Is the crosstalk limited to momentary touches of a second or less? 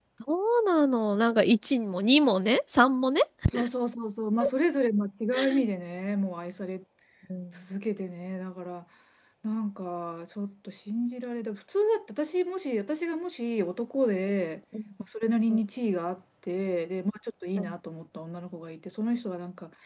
Yes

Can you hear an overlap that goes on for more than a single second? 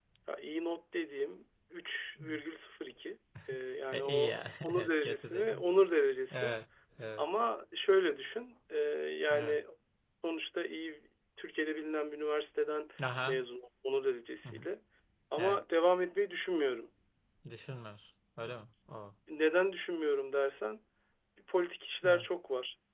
Yes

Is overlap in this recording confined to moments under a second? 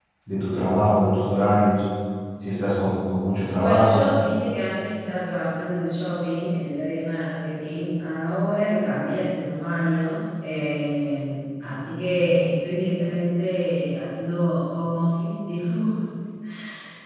Yes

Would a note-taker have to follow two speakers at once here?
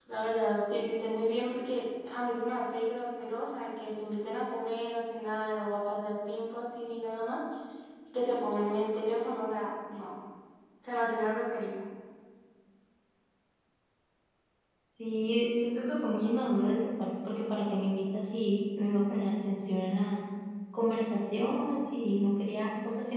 No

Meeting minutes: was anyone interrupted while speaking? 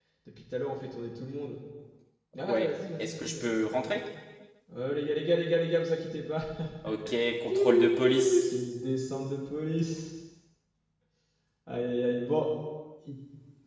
Yes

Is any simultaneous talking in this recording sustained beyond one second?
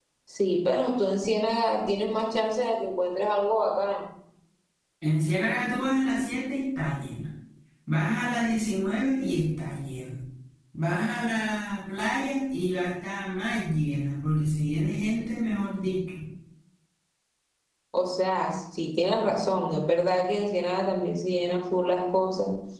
No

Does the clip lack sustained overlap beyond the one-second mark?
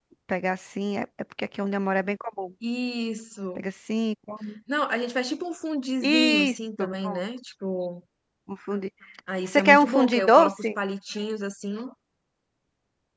No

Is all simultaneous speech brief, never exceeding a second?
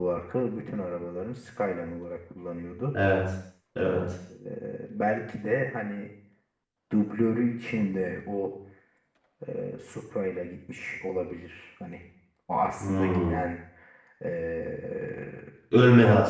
Yes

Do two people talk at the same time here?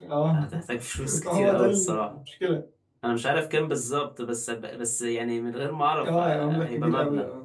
Yes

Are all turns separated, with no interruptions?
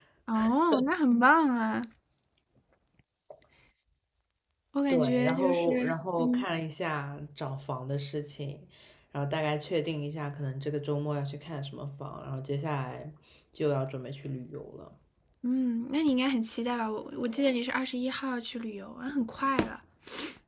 No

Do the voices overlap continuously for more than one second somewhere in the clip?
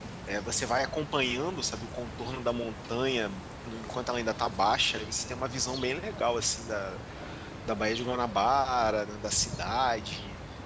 No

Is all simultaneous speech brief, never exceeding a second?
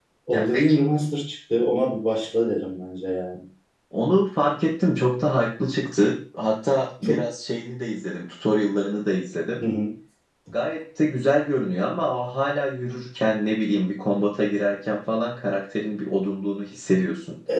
Yes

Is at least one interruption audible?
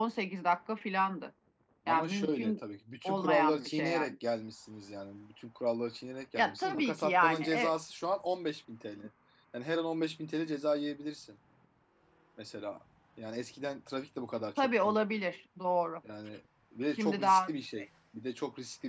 Yes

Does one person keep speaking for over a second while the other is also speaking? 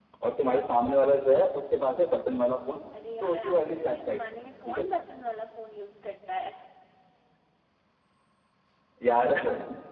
Yes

